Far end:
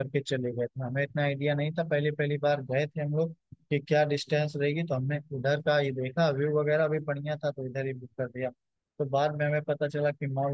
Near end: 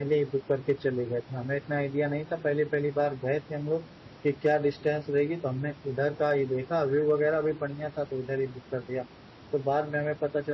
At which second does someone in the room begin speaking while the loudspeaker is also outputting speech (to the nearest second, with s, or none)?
none